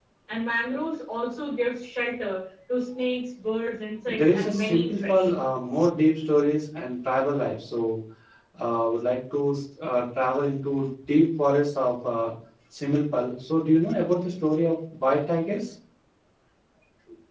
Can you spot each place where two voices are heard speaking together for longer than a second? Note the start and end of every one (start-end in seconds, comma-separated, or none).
4.1-5.3